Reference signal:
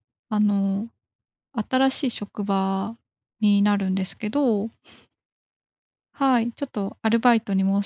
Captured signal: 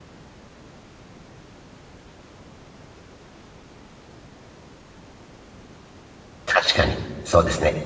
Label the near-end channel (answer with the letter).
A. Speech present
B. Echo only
A